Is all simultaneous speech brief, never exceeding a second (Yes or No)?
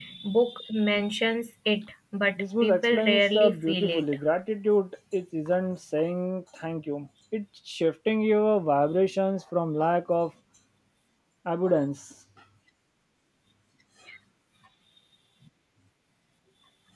No